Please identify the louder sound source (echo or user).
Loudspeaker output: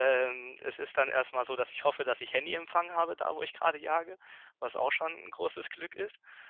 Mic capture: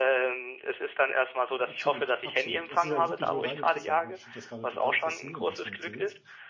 echo